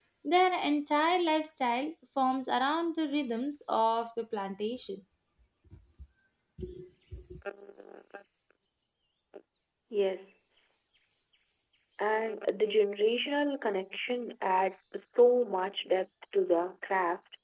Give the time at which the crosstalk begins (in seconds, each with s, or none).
none